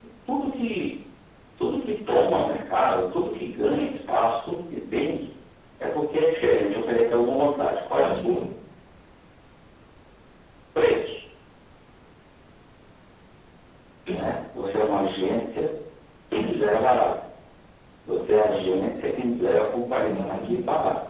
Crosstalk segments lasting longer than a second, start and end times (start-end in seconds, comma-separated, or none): none